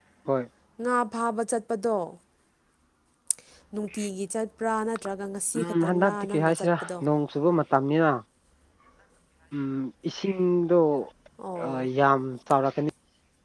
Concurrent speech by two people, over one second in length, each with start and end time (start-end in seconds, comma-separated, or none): 5.6-6.9